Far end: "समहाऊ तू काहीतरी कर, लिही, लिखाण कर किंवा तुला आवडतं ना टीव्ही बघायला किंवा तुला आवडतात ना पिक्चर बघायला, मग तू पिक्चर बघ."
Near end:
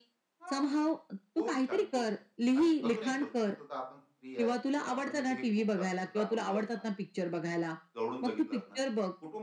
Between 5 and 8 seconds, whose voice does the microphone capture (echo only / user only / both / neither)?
both